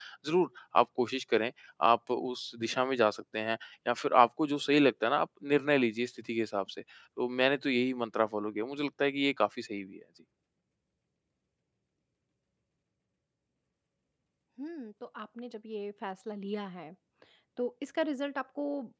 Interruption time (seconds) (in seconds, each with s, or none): none